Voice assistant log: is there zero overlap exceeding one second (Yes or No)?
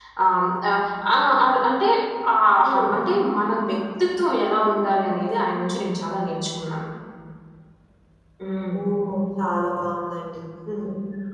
Yes